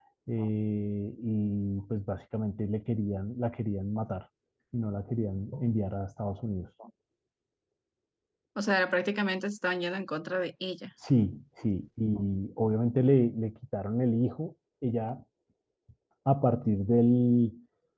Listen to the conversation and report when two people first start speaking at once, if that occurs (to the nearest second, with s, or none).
none